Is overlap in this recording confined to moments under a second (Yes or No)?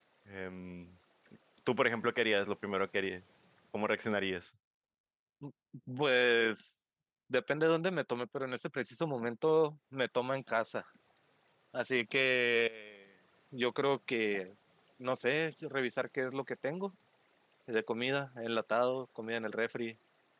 Yes